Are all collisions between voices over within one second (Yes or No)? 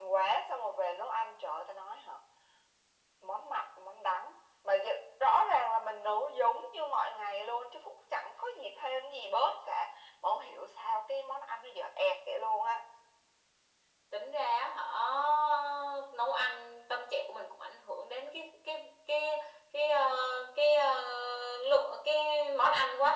Yes